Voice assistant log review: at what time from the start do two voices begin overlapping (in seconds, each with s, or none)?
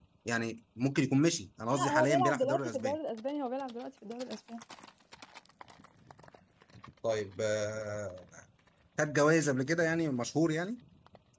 1.7 s